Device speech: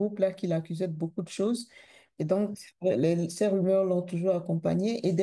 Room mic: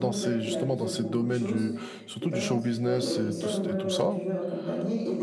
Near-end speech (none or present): present